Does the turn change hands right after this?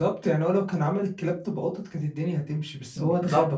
Yes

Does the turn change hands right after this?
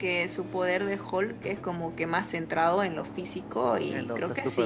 Yes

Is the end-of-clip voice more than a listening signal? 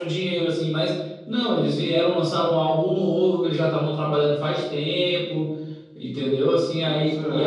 No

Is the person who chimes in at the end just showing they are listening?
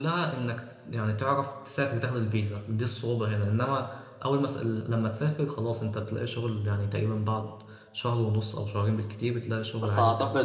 No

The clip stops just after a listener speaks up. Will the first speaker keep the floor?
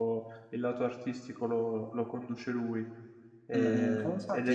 No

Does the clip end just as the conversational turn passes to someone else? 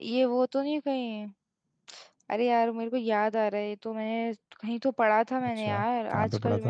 Yes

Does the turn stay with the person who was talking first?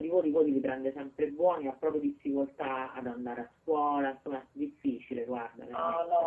No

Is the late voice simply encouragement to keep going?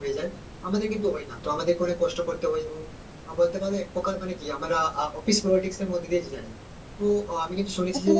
Yes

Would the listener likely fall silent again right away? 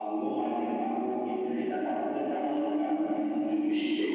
No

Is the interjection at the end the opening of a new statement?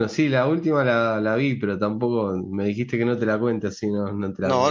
Yes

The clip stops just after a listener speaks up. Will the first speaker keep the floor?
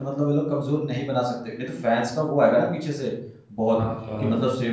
Yes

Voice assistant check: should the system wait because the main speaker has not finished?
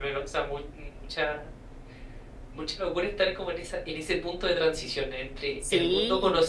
Yes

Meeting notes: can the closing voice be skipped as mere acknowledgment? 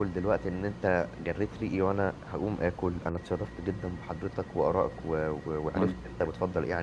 Yes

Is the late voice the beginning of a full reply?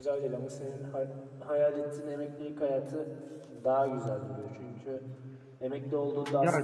Yes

